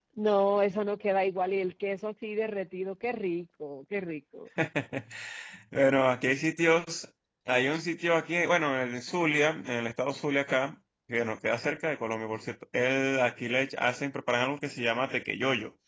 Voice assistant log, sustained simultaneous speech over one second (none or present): none